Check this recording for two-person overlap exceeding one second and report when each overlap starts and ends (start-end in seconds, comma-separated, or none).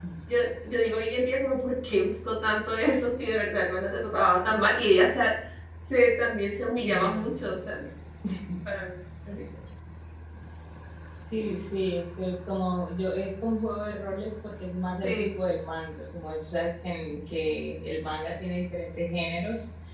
none